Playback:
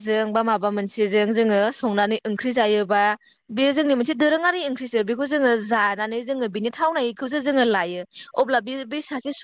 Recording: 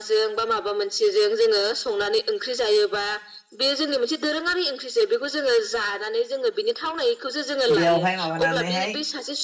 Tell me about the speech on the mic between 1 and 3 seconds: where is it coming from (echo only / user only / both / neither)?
echo only